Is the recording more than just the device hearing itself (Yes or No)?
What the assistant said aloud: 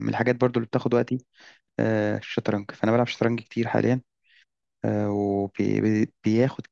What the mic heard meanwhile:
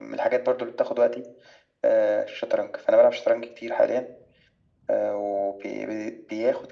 No